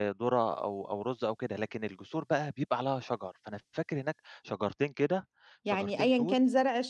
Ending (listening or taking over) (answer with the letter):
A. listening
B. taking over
B